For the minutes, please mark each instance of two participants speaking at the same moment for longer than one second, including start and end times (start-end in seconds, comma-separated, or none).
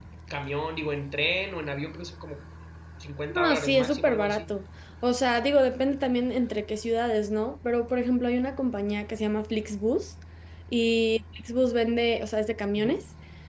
3.3-4.5